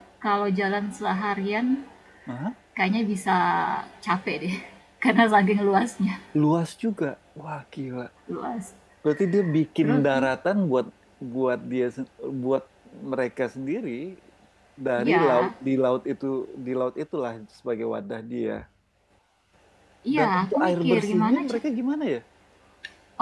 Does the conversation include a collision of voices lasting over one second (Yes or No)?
Yes